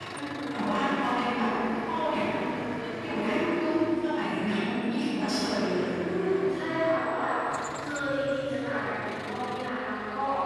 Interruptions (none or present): none